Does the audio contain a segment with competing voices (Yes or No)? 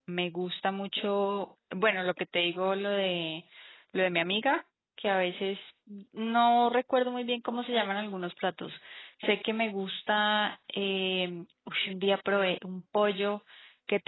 No